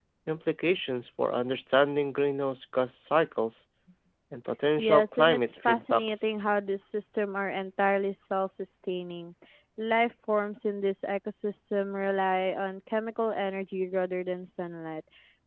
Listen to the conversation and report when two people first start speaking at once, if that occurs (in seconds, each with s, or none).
4.8 s